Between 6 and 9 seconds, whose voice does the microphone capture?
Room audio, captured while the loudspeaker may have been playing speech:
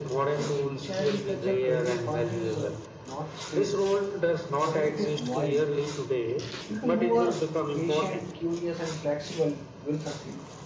both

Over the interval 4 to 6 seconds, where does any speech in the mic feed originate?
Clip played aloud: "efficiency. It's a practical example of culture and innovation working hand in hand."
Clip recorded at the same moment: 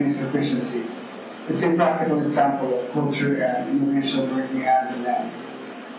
echo only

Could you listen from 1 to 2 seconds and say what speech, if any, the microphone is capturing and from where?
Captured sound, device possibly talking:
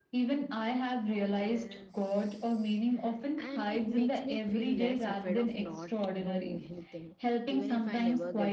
both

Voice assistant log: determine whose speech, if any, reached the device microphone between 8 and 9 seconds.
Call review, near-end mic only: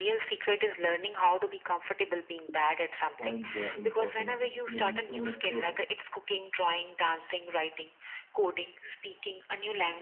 echo only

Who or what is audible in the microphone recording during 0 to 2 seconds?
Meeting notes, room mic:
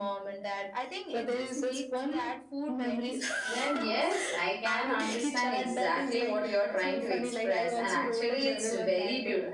echo only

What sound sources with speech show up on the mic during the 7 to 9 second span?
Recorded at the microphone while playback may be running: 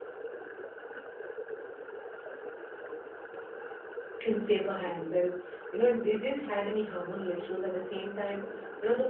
user only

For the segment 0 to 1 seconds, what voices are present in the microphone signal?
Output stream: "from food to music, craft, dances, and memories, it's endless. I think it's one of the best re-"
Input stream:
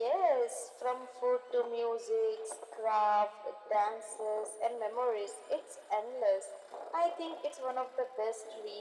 echo only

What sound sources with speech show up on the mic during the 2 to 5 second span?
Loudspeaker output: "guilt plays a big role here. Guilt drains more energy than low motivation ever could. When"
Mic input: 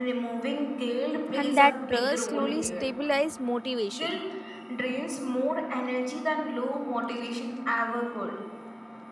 both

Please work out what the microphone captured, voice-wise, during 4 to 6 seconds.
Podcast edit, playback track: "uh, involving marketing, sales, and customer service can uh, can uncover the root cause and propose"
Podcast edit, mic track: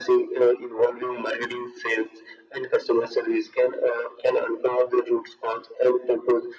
echo only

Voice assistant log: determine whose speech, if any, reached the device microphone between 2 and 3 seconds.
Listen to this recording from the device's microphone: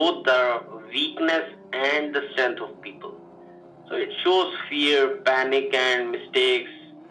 echo only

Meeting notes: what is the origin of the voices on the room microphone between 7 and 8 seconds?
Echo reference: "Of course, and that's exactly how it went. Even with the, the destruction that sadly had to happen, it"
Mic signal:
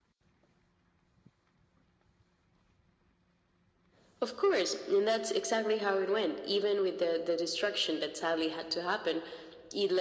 echo only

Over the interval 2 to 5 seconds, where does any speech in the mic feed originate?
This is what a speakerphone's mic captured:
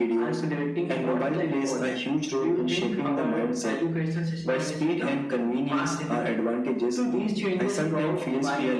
echo only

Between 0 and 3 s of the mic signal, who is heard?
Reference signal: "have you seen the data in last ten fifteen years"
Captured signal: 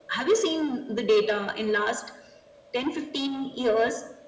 echo only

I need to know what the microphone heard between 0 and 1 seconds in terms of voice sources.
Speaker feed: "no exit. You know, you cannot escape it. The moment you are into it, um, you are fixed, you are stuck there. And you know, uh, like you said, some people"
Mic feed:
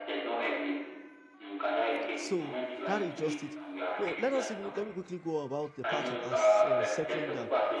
echo only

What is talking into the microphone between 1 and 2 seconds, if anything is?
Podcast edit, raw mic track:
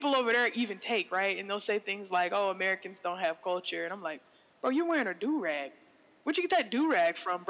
echo only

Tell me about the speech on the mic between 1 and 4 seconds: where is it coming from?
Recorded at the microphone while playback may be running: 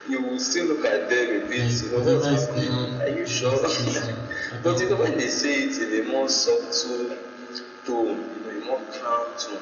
both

